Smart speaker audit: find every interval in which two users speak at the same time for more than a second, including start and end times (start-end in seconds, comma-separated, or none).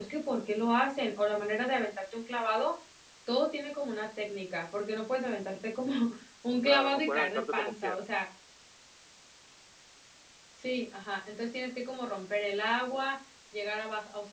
6.6-8.0